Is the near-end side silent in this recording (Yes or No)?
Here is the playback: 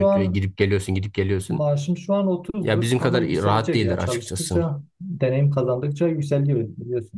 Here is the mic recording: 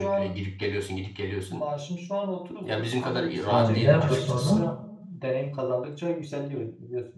No